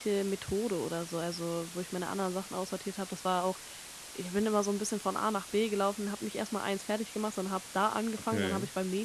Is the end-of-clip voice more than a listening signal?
No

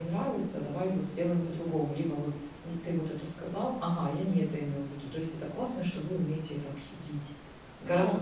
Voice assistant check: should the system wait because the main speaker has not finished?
No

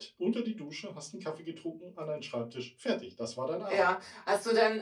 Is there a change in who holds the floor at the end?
Yes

